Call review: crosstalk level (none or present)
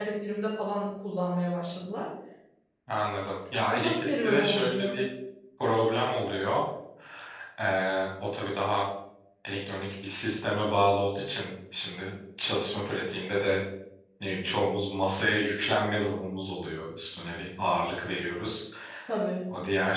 present